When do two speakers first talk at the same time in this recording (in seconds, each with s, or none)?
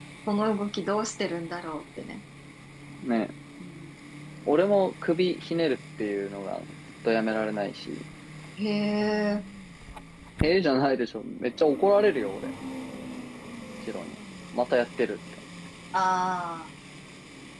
none